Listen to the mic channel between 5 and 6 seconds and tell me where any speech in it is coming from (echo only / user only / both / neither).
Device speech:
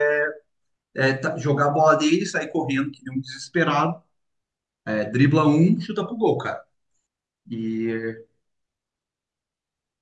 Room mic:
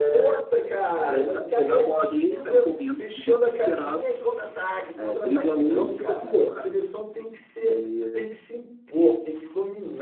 both